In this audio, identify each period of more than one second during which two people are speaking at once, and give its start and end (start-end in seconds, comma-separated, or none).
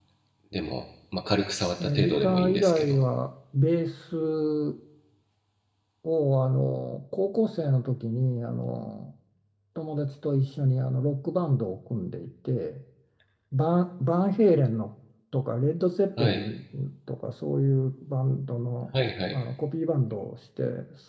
1.8-3.0